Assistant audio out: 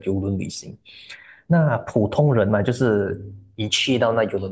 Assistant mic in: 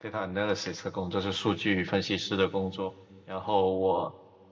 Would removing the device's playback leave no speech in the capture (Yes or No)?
No